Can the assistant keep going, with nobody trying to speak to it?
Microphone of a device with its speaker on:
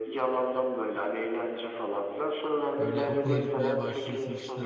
No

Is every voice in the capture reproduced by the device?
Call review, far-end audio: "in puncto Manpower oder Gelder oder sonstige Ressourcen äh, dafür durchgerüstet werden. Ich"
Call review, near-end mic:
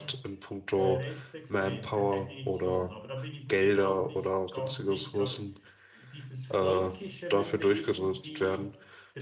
No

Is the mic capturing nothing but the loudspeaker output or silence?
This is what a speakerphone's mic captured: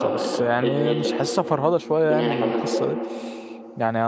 No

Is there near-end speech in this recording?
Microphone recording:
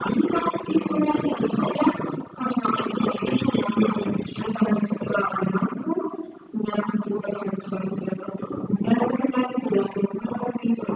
No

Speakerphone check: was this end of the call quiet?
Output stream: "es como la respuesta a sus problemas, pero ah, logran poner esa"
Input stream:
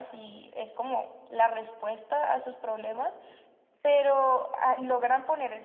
Yes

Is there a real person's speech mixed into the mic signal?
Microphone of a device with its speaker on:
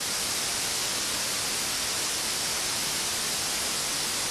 No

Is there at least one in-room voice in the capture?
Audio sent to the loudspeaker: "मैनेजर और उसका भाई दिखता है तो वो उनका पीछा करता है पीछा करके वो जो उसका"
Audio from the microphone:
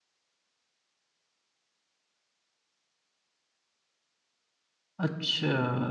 Yes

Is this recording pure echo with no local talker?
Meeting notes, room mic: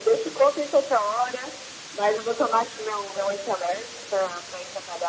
Yes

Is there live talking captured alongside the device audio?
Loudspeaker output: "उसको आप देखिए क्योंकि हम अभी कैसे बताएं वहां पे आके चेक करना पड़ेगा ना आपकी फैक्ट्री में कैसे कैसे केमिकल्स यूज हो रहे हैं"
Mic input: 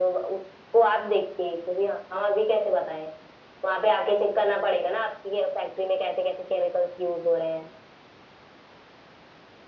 No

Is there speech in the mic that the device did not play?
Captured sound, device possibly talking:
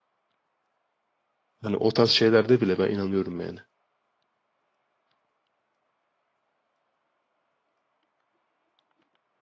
Yes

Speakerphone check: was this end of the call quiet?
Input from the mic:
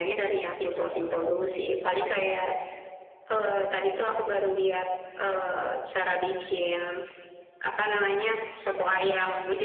Yes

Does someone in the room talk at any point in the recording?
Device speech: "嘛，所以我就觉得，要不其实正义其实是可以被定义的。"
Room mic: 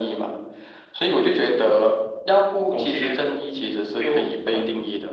Yes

